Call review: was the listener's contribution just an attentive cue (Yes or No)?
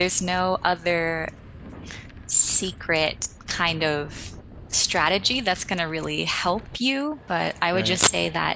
Yes